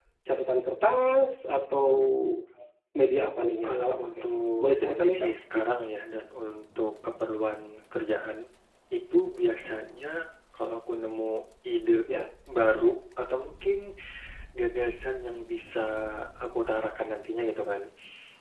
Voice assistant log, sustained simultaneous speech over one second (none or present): present